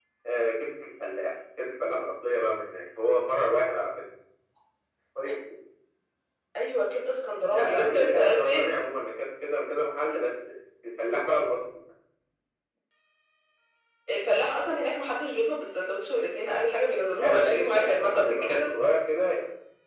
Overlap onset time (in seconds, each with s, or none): 7.5 s